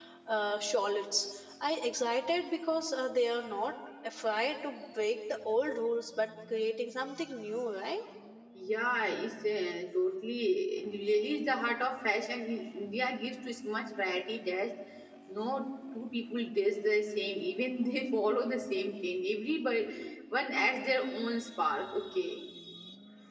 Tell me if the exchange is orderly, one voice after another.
Yes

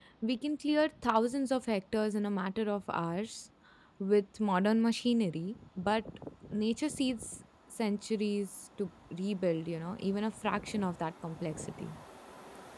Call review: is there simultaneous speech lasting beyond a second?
No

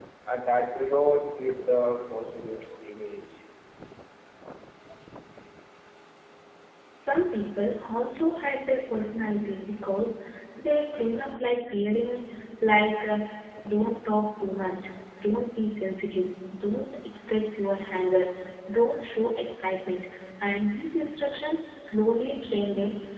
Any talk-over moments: No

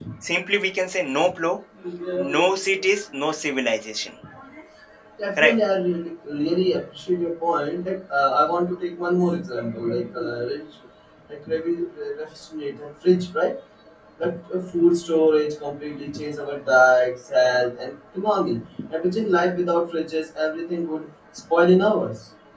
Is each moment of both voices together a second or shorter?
Yes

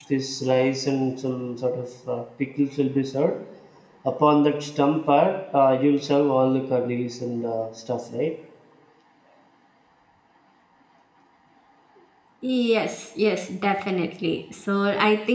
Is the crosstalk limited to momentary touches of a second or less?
Yes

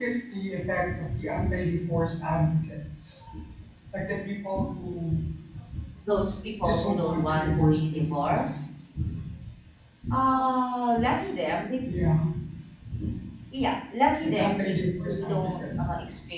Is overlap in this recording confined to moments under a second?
No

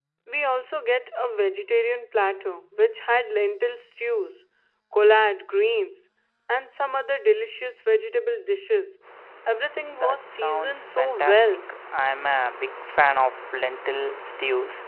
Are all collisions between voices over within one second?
No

